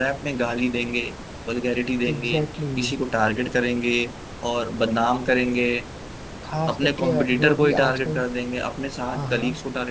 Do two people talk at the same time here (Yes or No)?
Yes